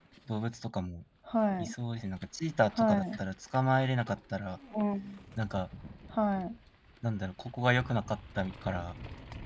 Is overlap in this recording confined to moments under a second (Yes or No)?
Yes